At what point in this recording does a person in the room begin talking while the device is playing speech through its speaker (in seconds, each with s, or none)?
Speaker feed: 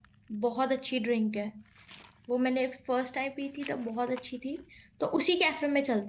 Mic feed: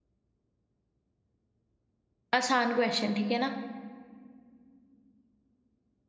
2.4 s